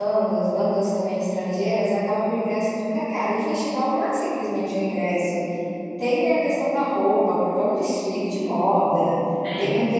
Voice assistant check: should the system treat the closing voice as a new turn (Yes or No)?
No